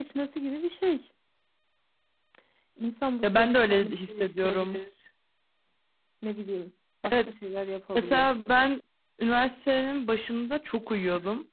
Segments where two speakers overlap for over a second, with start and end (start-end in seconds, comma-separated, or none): 3.2-4.8